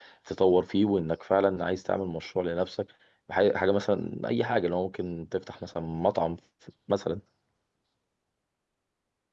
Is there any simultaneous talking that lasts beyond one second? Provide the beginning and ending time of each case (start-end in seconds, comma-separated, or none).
none